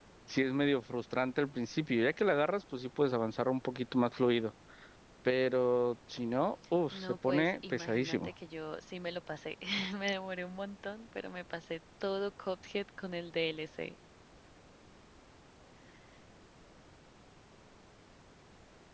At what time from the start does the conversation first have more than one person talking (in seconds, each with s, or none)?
6.9 s